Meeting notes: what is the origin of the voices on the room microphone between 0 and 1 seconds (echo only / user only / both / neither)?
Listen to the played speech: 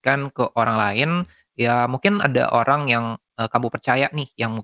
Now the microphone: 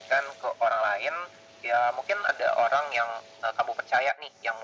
echo only